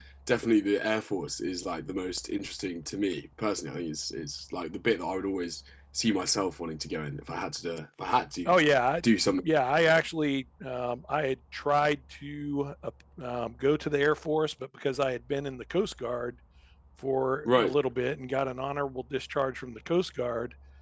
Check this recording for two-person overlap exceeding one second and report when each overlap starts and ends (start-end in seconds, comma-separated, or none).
none